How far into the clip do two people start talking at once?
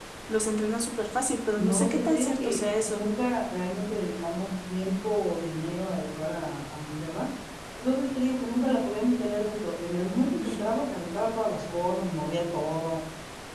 1.6 s

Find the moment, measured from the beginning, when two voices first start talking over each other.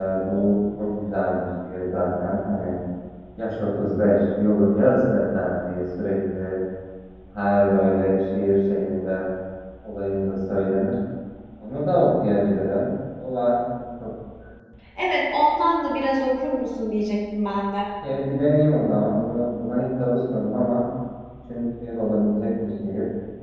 none

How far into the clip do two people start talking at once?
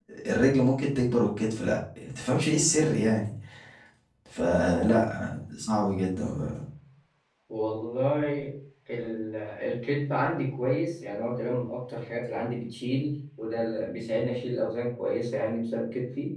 none

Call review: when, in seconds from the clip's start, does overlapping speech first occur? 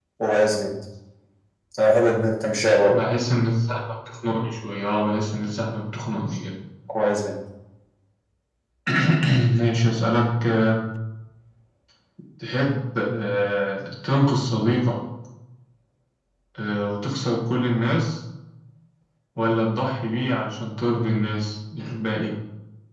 none

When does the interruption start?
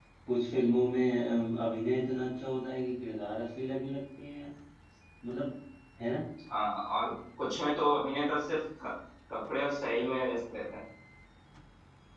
none

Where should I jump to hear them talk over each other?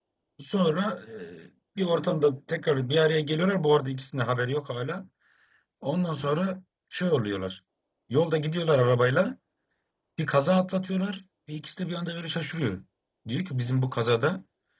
none

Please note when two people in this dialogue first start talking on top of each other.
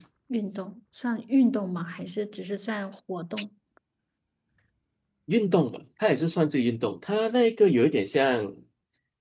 none

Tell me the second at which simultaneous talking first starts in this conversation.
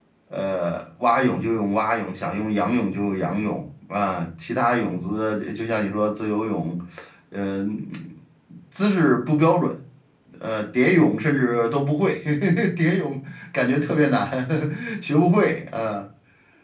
none

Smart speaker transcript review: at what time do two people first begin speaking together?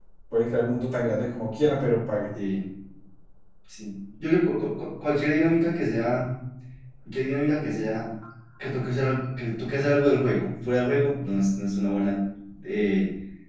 none

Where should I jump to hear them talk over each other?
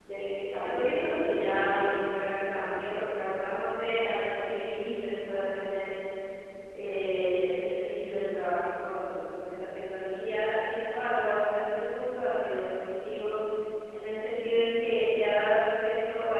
0.5 s

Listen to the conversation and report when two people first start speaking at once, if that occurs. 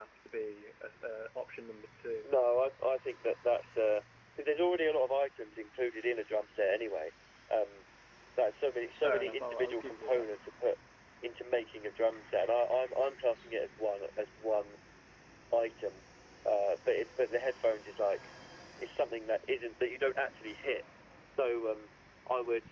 9.0 s

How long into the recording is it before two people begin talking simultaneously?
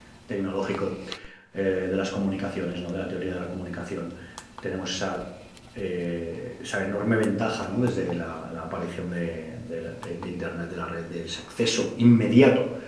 none

